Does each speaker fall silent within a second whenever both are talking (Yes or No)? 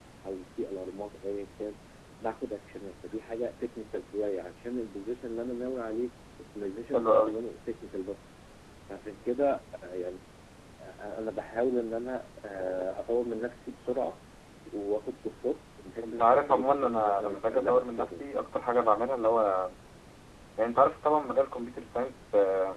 No